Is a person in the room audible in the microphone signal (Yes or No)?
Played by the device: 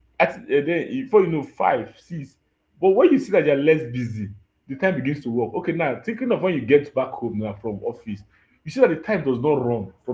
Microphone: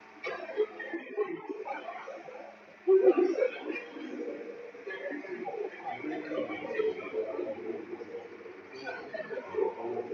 Yes